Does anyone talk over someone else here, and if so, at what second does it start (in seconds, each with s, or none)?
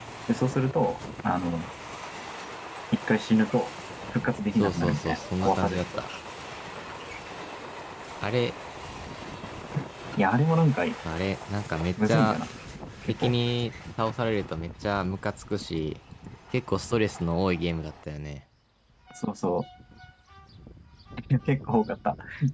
4.6 s